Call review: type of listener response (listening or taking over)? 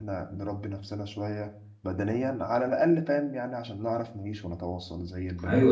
taking over